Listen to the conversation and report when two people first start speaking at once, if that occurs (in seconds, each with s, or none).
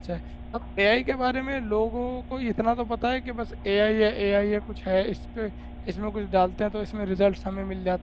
none